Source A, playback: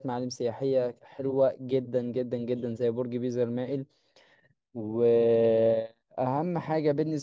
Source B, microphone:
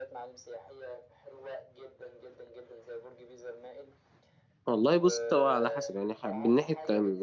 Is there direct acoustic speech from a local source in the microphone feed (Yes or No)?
Yes